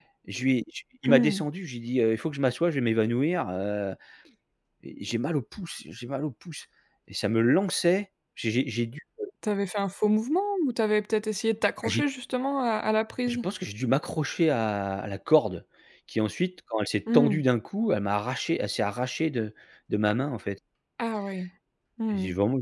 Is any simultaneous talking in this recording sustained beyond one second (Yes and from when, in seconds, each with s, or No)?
No